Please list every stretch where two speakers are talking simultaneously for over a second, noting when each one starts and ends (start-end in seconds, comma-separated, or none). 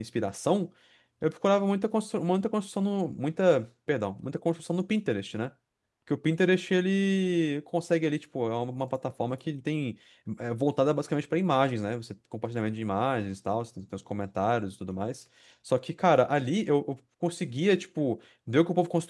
none